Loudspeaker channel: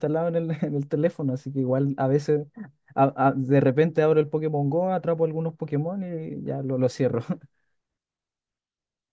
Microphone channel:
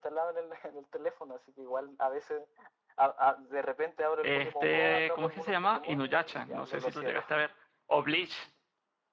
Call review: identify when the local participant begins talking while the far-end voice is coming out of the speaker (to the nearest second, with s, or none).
4 s